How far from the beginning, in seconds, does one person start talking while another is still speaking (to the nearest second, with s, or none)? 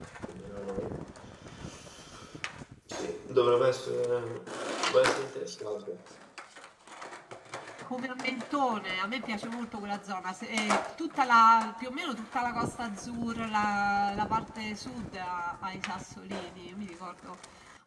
none